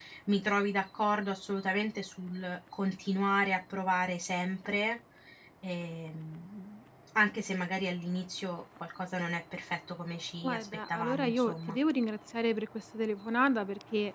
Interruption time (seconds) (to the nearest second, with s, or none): 10 s